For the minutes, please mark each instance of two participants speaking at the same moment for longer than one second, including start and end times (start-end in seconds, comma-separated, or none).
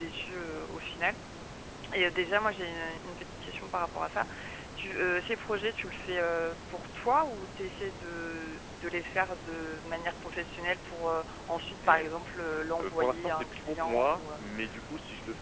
12.8-14.4